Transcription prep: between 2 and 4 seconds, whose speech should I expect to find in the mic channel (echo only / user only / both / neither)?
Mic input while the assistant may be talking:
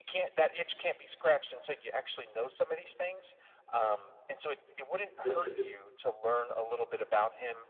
echo only